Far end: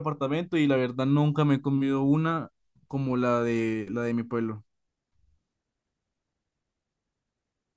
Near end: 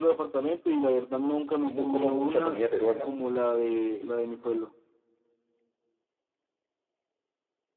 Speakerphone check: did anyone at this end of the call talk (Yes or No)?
Yes